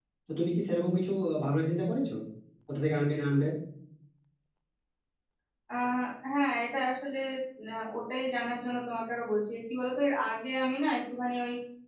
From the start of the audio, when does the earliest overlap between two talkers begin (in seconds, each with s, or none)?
none